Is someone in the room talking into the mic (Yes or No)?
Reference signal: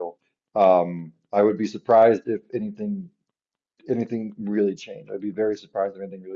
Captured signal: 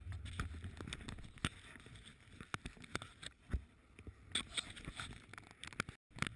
No